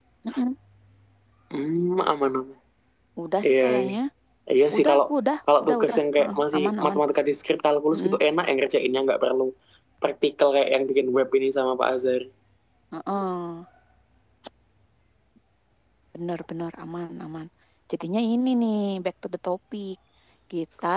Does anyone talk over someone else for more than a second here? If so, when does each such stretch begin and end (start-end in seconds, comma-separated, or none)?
5.6-7.0